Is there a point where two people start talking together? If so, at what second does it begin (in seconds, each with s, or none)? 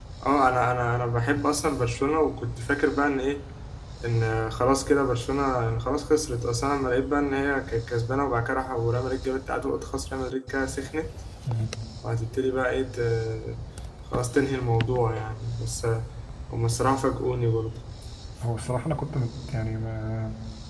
none